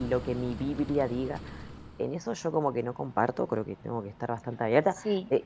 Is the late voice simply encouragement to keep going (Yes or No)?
Yes